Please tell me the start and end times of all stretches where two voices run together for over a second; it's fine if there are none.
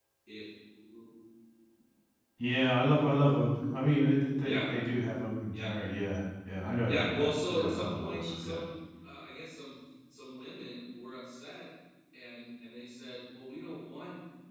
6.9-8.6

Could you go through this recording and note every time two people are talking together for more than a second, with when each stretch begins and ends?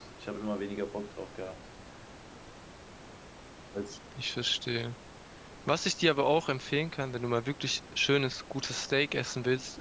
none

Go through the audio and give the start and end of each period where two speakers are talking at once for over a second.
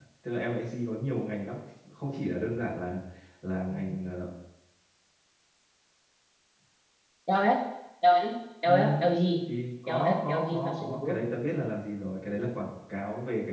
9.9-11.2

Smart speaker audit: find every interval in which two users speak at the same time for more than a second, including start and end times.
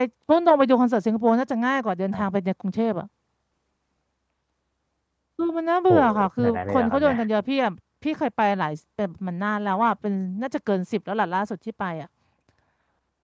5.9-7.2

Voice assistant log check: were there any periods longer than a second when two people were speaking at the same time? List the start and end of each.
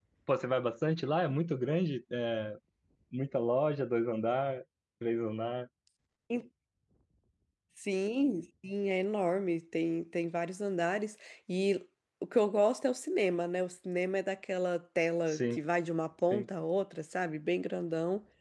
none

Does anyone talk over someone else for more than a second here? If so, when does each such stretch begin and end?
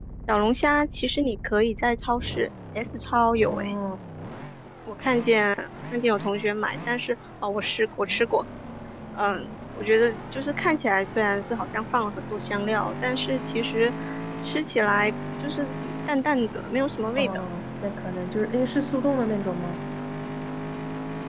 none

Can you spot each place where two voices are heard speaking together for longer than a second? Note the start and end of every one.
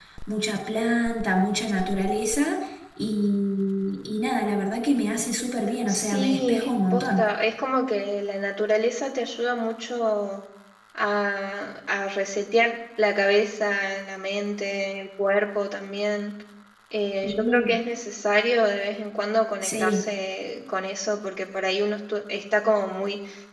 5.9-7.3

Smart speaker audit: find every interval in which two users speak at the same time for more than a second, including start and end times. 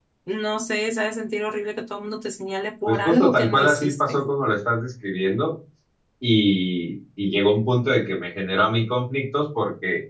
2.9-4.2

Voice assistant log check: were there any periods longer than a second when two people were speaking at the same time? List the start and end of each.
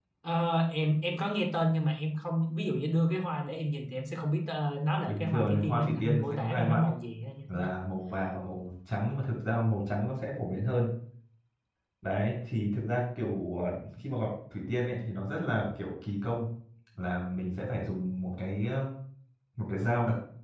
5.0-6.9

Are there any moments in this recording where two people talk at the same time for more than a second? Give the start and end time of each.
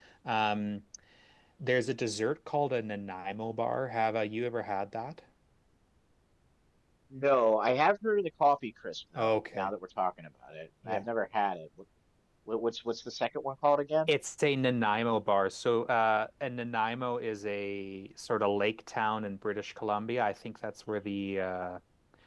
none

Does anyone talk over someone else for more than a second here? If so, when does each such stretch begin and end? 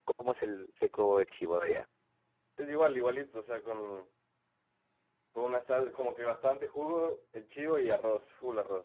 none

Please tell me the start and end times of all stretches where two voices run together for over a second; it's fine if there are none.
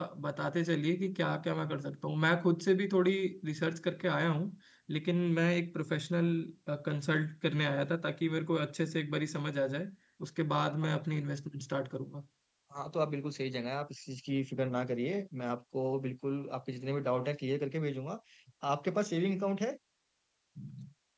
none

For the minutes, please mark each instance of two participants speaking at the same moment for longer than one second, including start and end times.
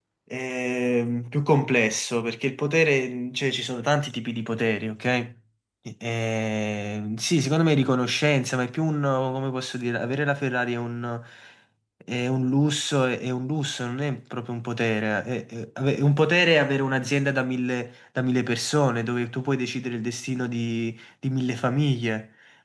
none

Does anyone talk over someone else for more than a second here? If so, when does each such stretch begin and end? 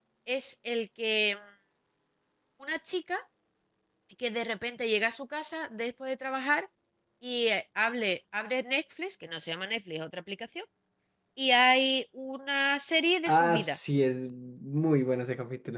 none

